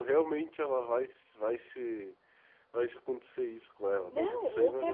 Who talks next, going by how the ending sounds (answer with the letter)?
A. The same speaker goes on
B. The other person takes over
B